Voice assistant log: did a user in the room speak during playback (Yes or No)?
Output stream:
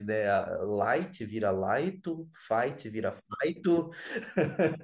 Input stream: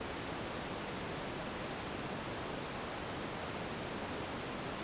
No